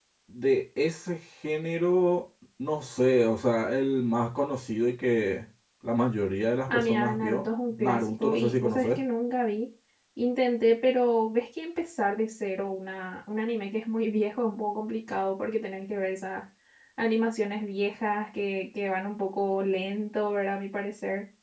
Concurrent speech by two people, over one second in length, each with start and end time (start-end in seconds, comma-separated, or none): 6.7-9.0